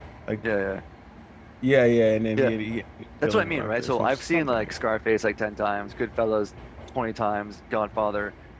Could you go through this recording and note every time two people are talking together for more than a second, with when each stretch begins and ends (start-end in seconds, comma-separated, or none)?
3.2-4.7